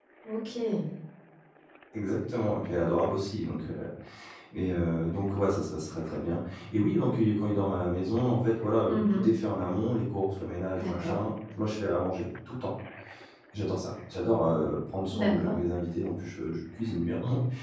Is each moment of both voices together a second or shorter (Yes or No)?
Yes